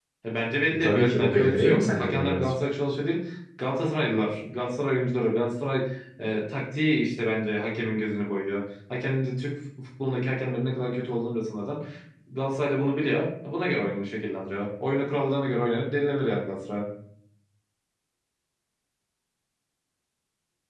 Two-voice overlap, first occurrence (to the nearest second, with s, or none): 1 s